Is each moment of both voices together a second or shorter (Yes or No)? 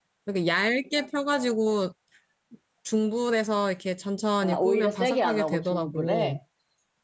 No